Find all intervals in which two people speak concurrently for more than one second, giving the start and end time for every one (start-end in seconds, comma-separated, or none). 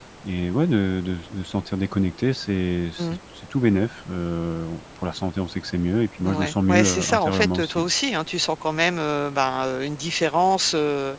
6.2-7.8